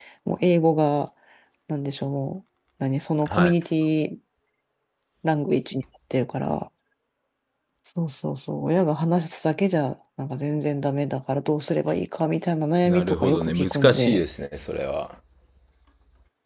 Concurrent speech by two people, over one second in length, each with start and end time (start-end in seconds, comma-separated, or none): 12.9-14.2